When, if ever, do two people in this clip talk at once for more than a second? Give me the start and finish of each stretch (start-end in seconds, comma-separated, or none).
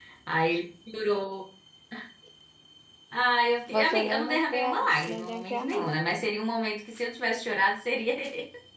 3.7-6.2